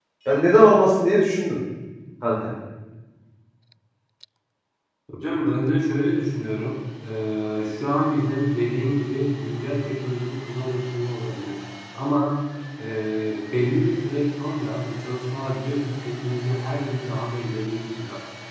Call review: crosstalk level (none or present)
none